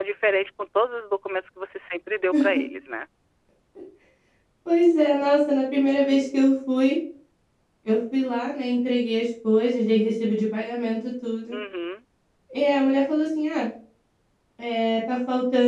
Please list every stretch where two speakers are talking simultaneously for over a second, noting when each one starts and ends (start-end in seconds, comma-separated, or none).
none